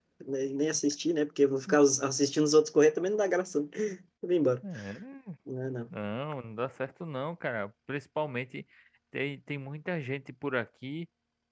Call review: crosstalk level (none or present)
none